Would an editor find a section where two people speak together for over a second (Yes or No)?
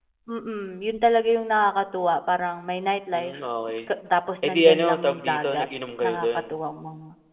Yes